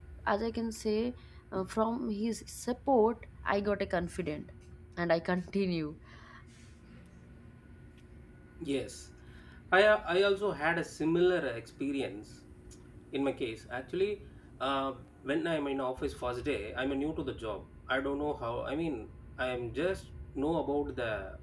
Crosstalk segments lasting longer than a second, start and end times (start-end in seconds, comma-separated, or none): none